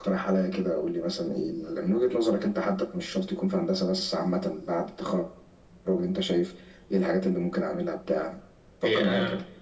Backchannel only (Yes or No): No